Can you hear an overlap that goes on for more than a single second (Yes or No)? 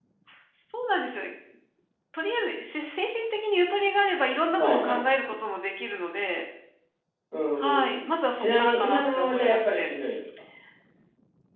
Yes